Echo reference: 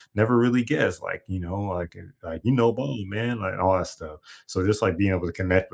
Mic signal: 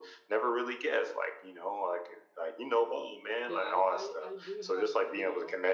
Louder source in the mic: echo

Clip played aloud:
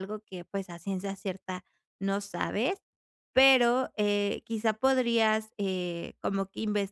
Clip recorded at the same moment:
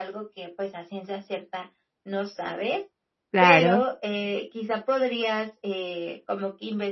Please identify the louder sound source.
user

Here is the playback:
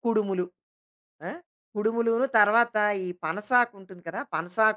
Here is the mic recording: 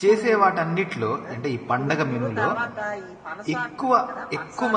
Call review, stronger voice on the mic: user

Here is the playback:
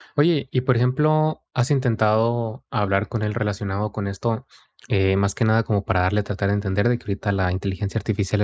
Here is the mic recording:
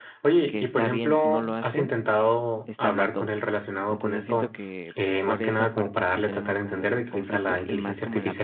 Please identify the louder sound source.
echo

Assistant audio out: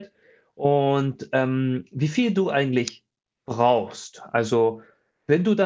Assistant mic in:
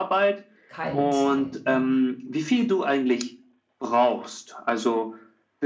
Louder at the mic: echo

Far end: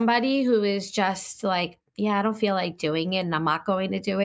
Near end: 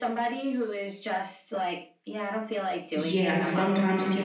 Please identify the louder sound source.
user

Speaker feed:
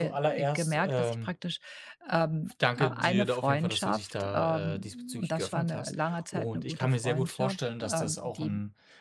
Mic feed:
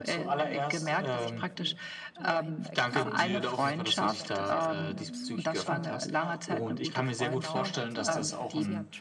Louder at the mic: echo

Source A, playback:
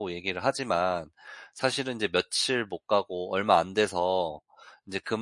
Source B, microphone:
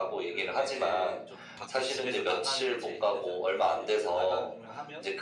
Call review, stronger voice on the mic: echo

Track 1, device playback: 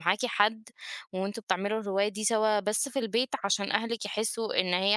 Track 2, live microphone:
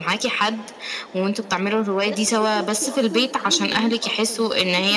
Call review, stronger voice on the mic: echo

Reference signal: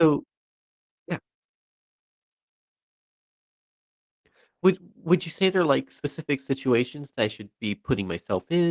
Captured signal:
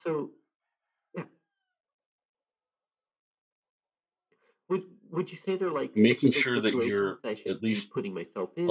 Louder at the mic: user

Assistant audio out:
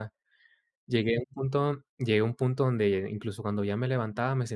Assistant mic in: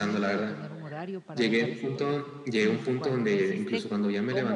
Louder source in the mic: echo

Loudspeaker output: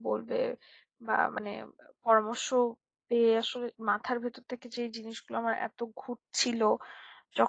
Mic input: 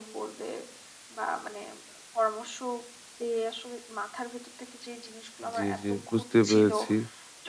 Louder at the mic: user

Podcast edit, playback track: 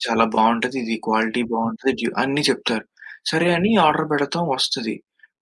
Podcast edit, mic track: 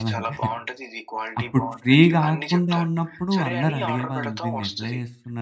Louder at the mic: user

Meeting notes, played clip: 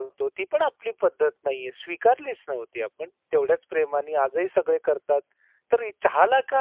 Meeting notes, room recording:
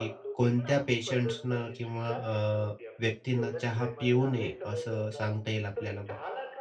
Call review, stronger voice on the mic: user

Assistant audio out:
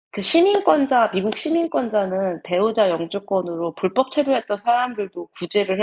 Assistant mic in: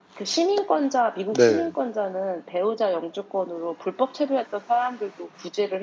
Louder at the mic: user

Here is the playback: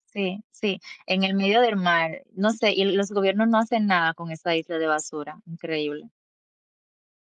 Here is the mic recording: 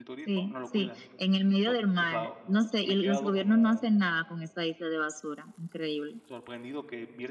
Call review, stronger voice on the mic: echo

